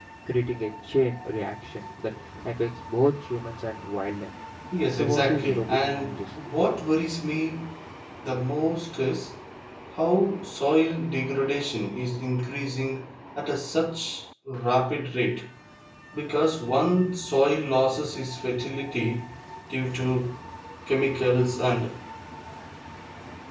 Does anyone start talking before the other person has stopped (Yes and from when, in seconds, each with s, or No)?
Yes, from 4.9 s